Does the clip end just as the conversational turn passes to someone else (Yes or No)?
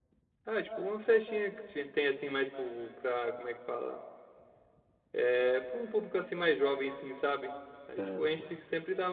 No